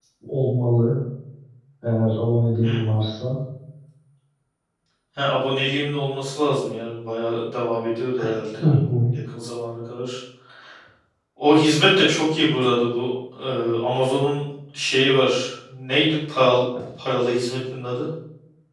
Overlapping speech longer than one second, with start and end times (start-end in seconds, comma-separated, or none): none